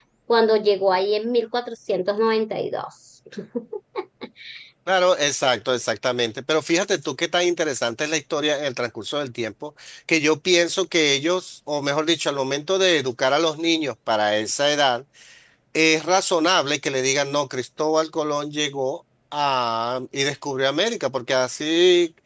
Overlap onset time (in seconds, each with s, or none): none